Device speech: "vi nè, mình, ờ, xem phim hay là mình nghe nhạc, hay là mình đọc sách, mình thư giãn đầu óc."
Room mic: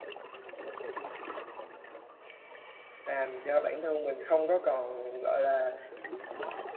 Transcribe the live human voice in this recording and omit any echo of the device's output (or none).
Làm cho bản thân mình không có còn, gọi là,